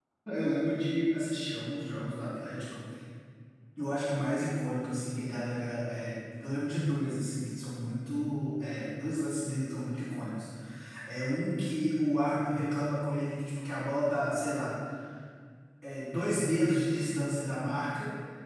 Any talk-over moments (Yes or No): No